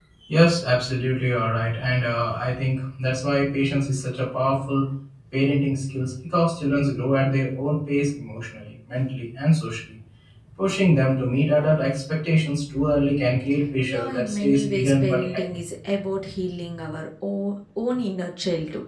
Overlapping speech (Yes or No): Yes